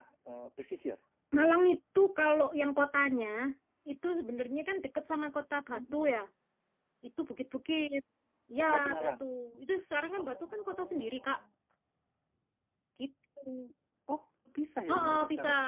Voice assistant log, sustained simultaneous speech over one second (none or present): present